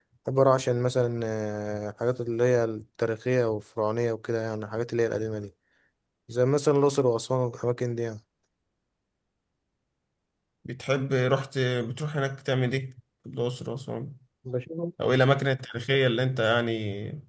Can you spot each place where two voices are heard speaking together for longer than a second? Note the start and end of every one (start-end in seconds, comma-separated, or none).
none